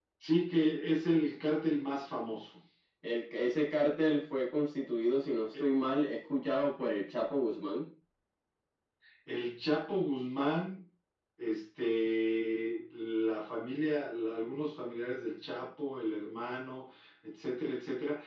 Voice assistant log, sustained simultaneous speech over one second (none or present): none